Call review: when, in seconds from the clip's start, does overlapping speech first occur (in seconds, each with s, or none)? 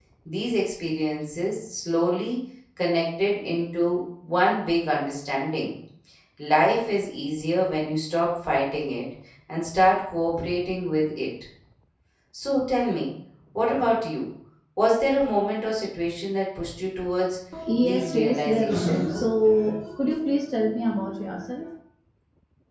17.8 s